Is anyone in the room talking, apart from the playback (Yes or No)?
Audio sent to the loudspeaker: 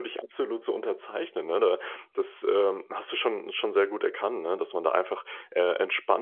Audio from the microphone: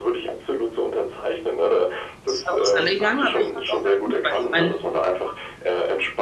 Yes